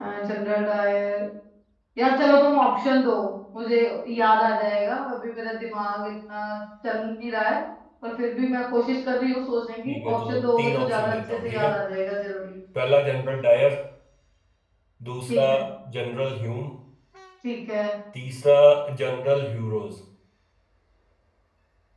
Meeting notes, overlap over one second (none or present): present